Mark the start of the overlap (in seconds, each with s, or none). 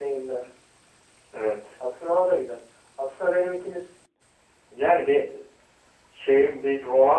none